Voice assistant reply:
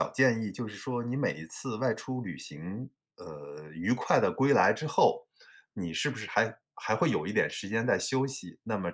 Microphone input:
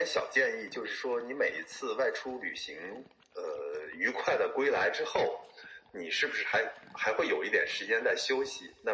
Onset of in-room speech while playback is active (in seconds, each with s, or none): none